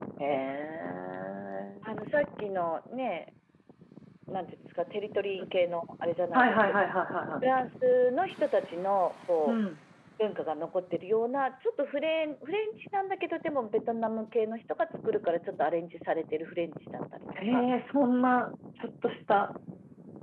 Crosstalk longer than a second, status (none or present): none